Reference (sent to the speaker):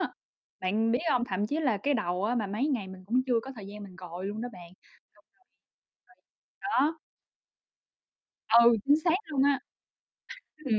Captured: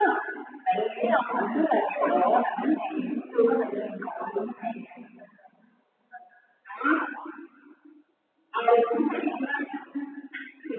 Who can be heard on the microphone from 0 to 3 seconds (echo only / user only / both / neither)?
echo only